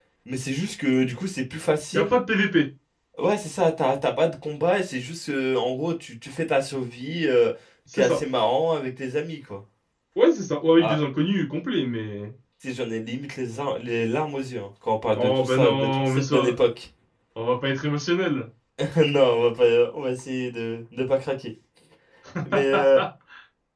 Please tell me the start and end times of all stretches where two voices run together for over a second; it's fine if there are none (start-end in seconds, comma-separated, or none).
15.2-16.6